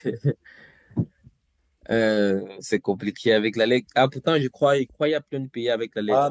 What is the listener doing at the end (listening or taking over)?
taking over